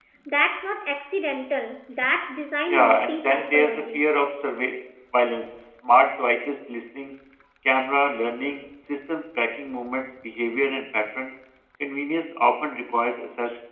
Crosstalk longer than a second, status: present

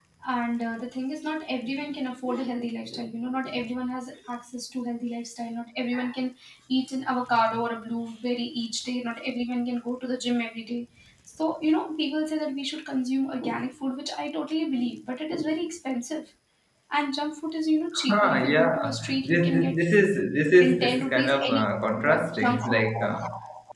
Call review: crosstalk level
present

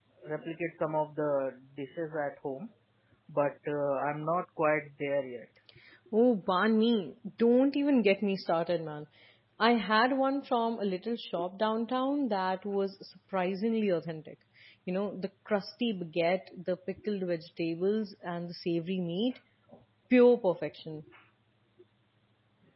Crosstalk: none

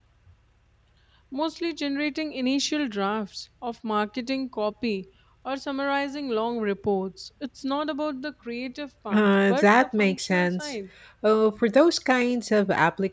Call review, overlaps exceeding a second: present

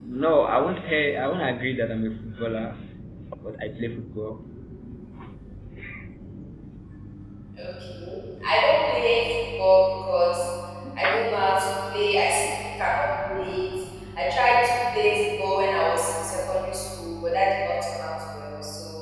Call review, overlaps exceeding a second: none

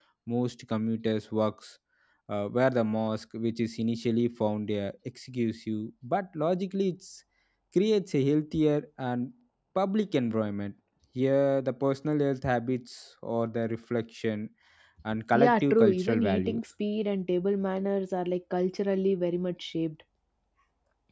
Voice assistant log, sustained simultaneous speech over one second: present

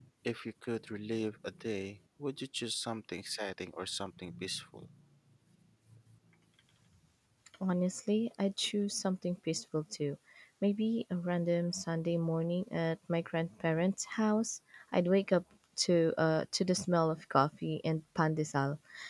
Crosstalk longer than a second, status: none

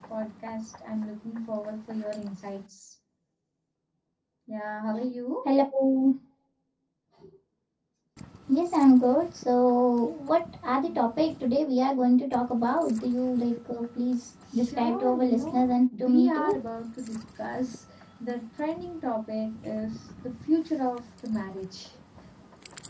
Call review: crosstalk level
present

